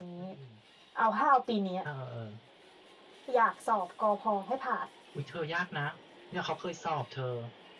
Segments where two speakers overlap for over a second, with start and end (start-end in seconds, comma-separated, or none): none